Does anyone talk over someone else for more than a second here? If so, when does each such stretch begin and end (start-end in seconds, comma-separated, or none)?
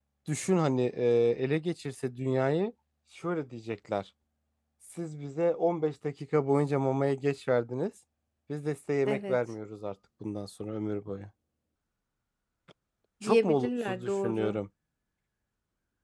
13.2-14.6